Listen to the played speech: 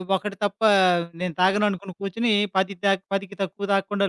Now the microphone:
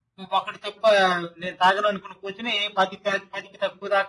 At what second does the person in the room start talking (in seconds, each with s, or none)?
none